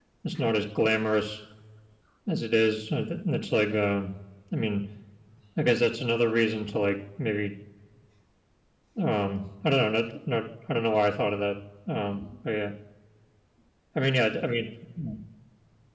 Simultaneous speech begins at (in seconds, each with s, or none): none